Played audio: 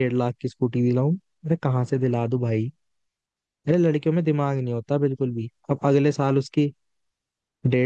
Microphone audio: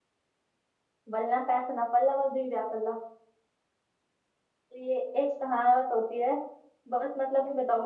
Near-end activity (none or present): present